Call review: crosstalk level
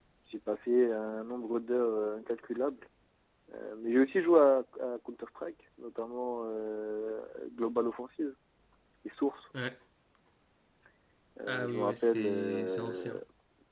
present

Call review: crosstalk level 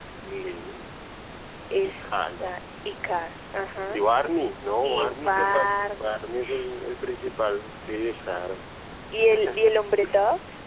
present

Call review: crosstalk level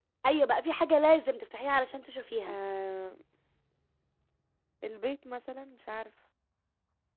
none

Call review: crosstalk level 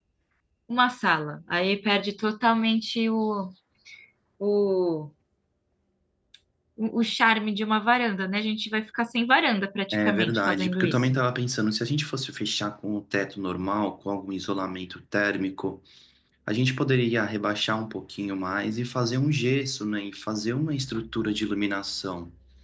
present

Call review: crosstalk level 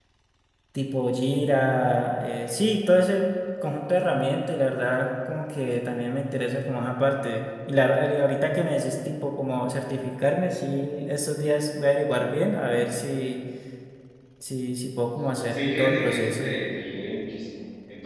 present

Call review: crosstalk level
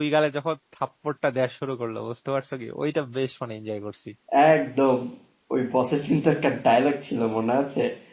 none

